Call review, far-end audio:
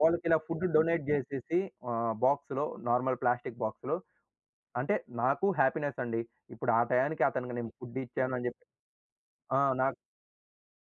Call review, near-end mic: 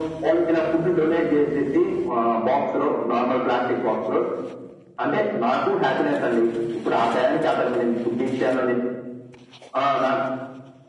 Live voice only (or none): none